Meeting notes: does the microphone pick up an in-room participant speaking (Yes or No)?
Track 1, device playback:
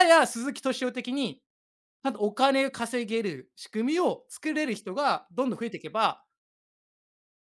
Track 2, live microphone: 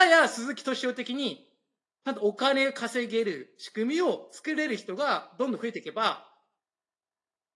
No